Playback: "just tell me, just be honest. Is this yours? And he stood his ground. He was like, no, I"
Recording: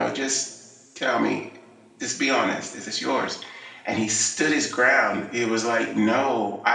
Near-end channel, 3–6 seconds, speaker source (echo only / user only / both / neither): echo only